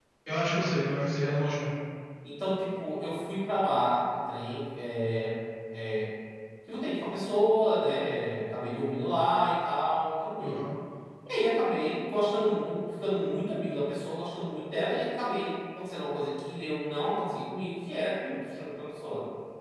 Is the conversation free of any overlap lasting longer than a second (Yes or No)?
Yes